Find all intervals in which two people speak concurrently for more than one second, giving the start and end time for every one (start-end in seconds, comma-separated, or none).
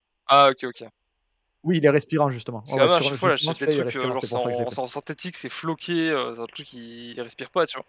2.7-4.8